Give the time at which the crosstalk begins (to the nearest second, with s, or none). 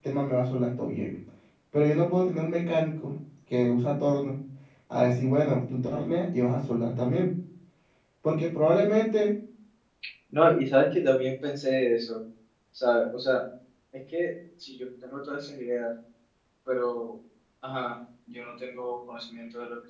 none